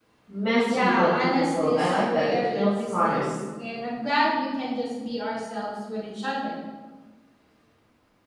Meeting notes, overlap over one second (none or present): present